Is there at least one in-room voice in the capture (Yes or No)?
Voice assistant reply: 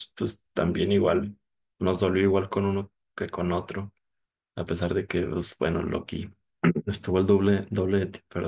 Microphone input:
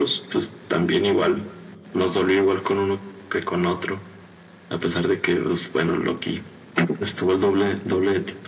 No